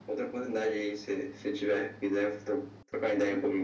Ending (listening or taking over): taking over